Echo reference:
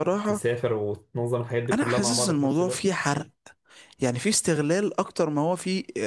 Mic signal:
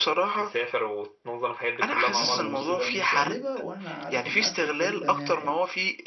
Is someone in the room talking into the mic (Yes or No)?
Yes